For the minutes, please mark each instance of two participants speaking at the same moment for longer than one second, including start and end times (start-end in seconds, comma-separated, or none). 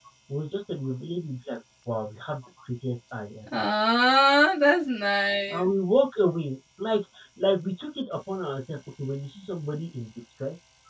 none